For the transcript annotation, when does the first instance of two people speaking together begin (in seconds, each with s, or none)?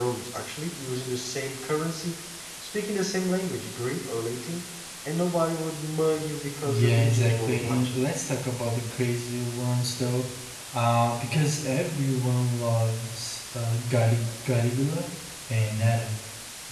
6.6 s